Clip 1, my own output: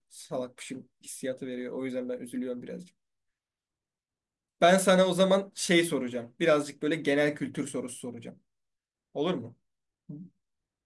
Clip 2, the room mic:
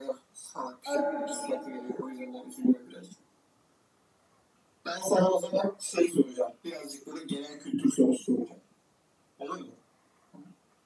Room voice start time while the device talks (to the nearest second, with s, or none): 1 s